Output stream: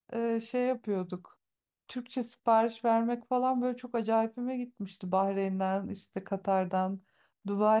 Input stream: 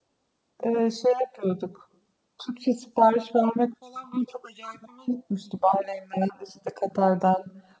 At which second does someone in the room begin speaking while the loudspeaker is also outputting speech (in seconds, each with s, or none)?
none